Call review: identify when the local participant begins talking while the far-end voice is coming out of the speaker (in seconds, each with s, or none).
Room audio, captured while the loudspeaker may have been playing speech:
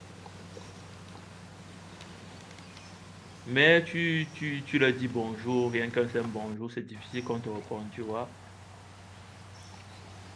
3.5 s